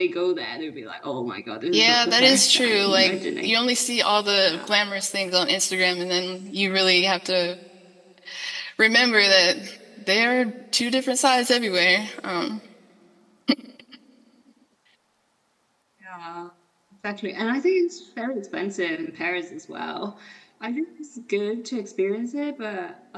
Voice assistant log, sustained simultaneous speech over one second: present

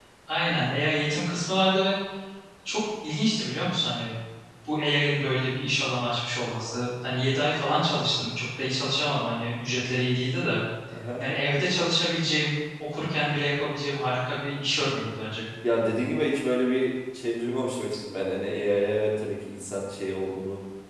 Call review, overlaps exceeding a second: none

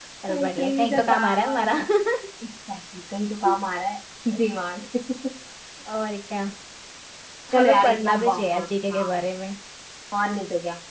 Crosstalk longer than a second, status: present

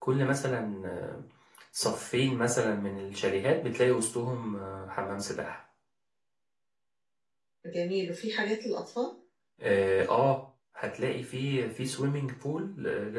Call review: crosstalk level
none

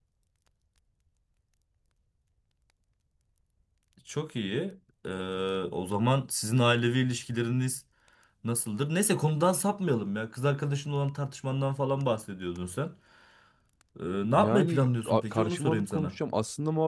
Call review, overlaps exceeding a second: present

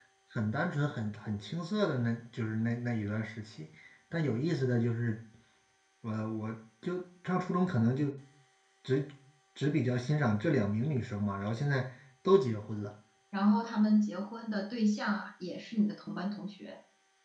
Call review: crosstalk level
none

